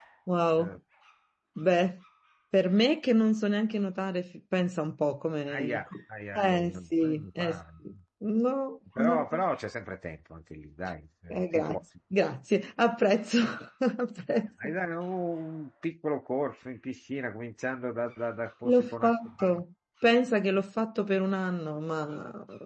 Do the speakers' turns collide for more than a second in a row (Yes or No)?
Yes